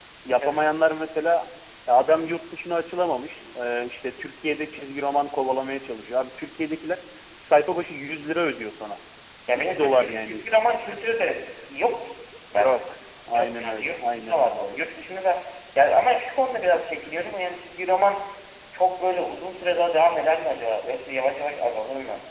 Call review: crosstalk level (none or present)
present